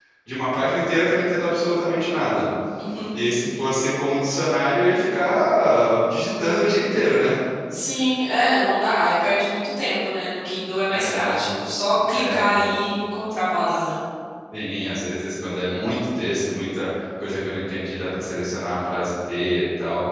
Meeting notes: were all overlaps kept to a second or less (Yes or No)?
Yes